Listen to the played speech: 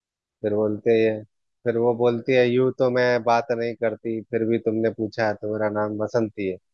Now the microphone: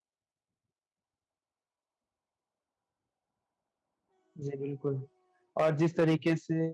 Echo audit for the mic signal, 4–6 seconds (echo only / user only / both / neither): user only